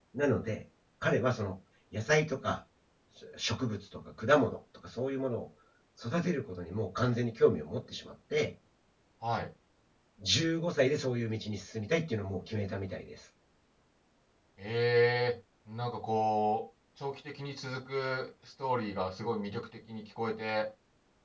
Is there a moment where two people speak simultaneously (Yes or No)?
No